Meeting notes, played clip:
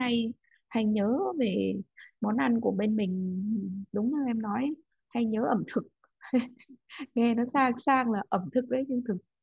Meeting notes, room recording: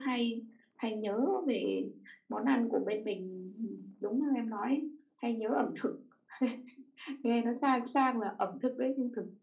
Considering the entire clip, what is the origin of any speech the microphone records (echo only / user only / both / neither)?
echo only